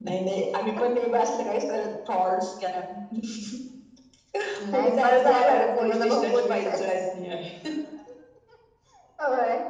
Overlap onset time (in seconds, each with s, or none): 4.7 s